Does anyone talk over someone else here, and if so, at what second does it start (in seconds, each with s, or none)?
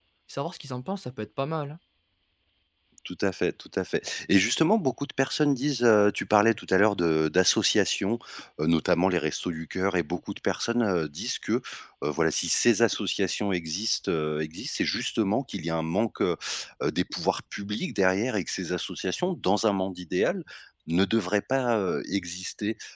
none